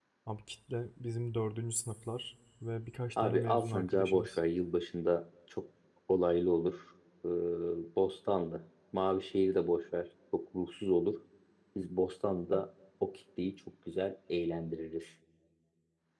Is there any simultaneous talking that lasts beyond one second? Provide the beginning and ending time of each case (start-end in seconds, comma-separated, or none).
3.2-4.4